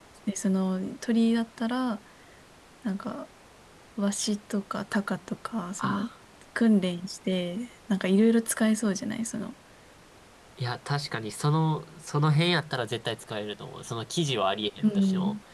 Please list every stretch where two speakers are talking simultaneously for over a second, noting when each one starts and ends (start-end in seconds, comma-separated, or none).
none